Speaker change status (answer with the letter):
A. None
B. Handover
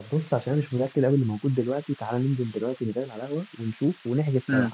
B